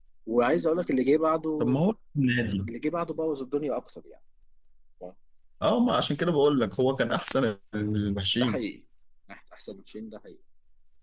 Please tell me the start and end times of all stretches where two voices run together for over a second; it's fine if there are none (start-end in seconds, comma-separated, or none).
none